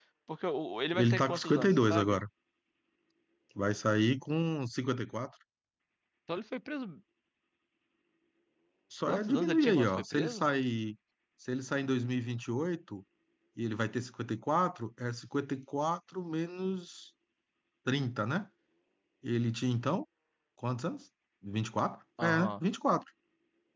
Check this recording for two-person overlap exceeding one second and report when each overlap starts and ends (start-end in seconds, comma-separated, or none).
0.9-2.2, 9.1-10.4